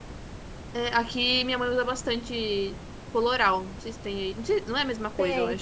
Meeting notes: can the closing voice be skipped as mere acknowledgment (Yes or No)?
No